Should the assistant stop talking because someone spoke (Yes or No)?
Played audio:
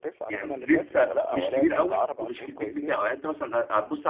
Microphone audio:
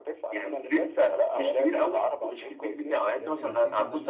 Yes